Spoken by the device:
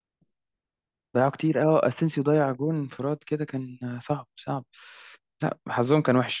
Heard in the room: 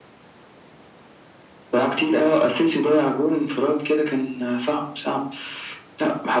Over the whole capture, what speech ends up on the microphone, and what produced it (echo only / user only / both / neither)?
echo only